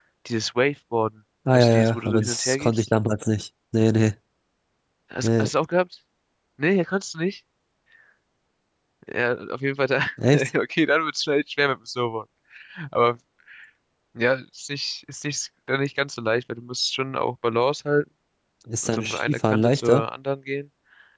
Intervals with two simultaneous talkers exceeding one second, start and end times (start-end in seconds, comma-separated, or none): 1.5-2.9, 18.8-20.0